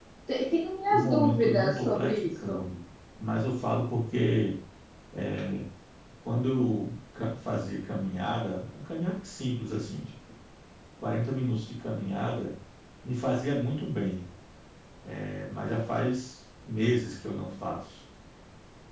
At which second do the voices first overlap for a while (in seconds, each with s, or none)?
0.9 s